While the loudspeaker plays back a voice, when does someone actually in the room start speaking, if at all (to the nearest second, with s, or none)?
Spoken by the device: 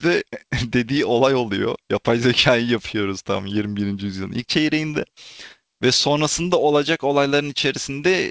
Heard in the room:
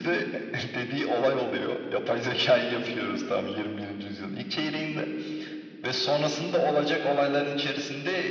none